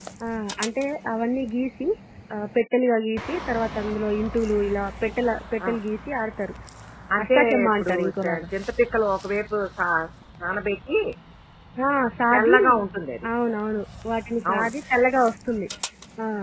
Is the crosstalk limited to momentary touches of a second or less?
No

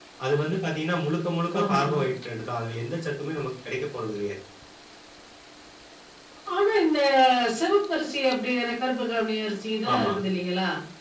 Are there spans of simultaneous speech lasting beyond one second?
No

